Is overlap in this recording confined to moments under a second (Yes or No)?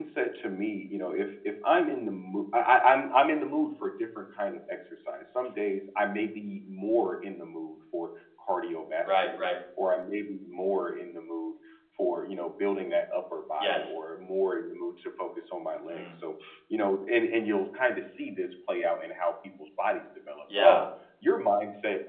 Yes